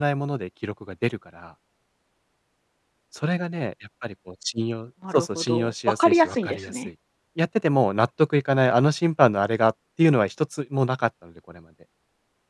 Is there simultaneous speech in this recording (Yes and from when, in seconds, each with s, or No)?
Yes, from 5.0 s